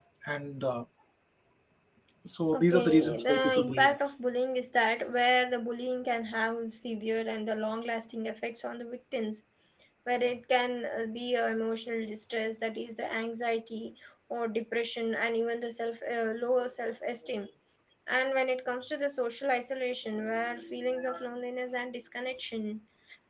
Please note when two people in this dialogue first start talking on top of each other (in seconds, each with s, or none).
2.5 s